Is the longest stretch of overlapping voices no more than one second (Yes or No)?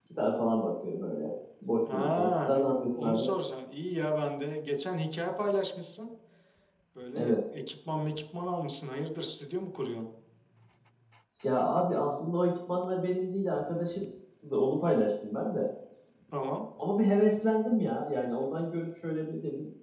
No